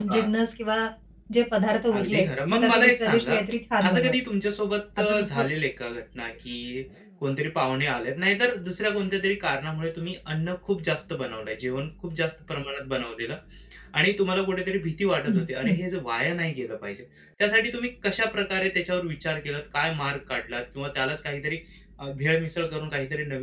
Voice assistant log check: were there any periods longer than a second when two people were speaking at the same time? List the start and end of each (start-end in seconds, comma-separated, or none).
2.0-3.4